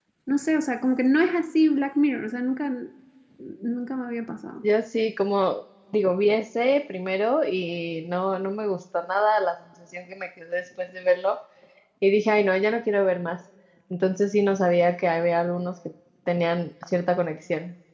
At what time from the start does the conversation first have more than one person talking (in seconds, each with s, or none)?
none